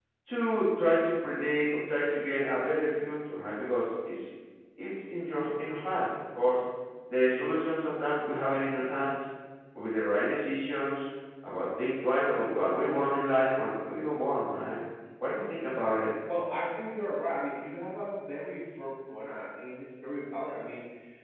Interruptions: none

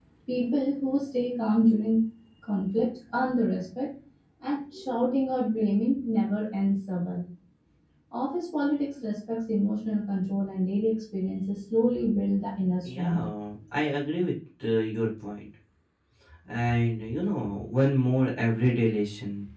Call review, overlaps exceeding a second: none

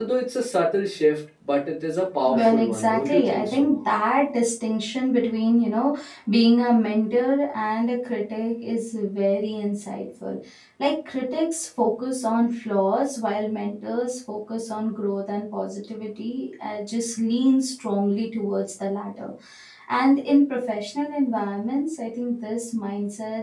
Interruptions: present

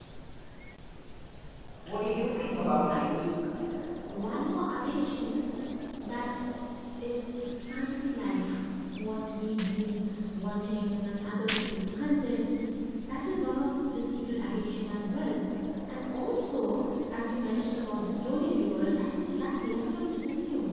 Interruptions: present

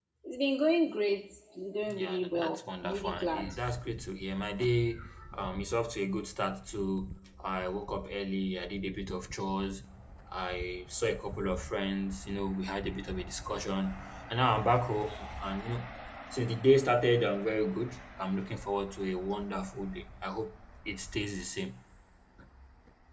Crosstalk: present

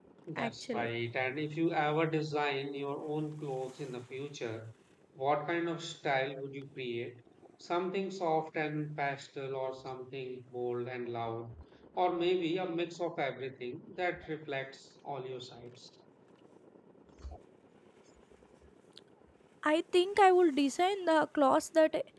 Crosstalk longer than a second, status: none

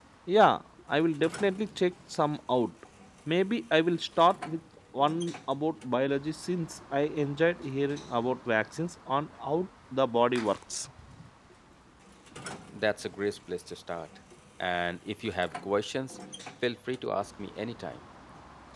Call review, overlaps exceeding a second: none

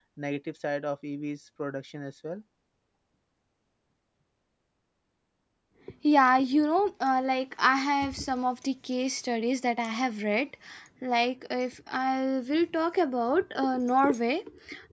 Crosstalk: none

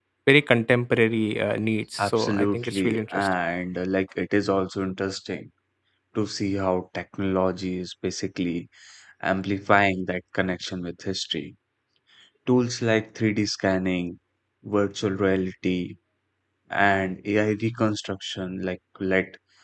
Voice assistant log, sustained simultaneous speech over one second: present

